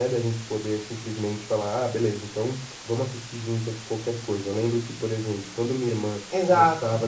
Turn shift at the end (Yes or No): No